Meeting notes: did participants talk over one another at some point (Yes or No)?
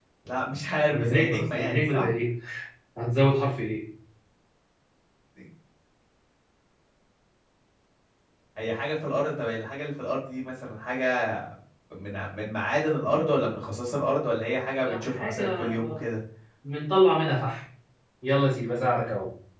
Yes